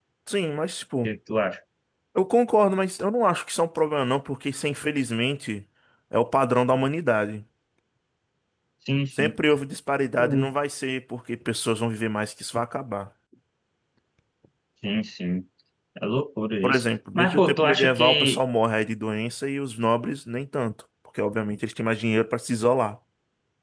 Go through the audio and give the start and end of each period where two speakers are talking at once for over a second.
16.6-18.4

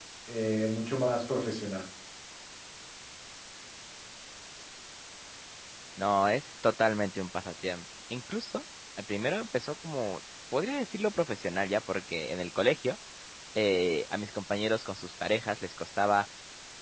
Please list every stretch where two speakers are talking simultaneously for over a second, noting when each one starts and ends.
none

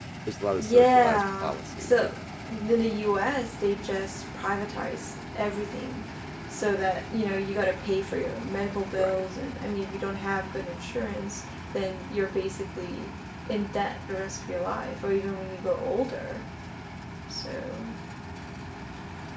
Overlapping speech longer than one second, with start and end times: 0.6-2.1

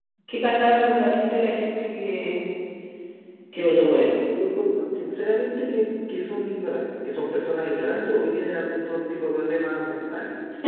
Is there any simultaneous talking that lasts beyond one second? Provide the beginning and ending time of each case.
none

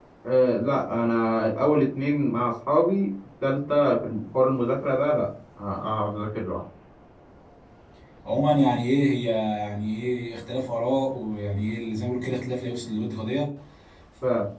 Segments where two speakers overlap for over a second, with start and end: none

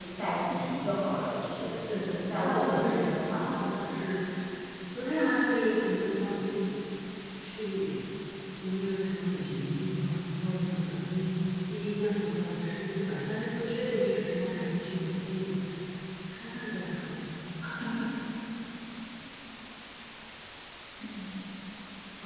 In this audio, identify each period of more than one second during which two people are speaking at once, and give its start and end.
1.9-3.4

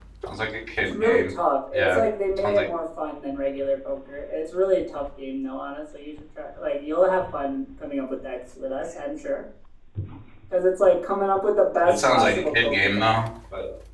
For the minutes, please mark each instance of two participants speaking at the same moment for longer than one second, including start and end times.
11.8-13.1

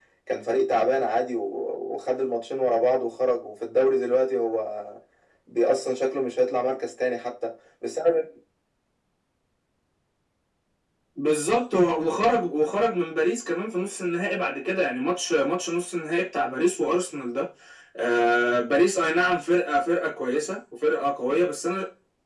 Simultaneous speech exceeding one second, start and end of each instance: none

